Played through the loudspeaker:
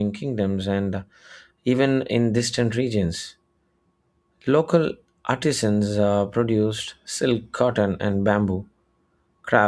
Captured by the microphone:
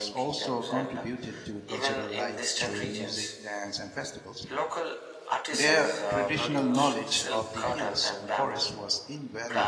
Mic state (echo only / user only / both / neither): both